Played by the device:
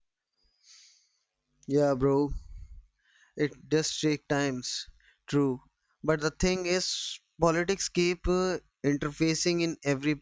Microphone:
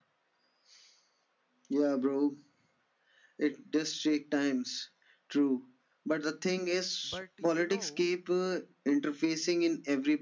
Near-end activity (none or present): present